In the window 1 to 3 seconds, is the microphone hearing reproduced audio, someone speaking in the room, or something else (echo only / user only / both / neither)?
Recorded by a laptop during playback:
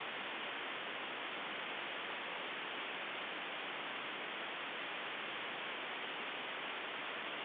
neither